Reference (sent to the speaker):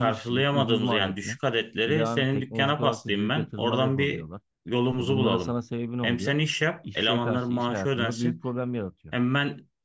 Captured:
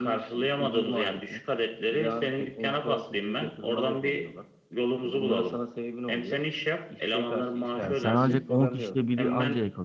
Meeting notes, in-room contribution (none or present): present